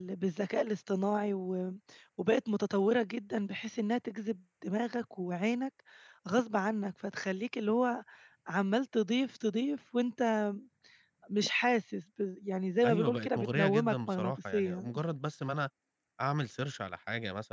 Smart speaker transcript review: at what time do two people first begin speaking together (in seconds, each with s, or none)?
12.8 s